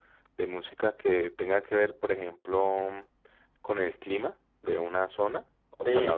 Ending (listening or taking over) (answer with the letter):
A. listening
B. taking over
B